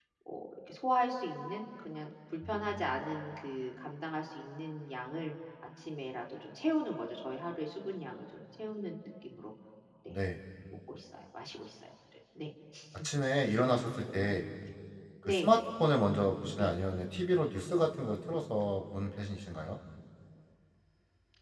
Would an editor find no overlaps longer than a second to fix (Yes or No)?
Yes